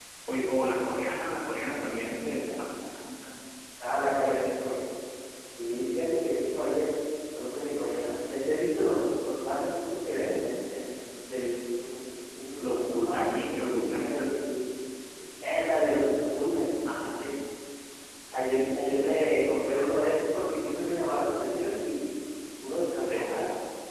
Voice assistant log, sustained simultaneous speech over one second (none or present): present